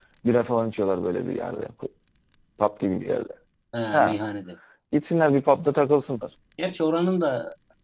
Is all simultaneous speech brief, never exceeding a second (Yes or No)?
Yes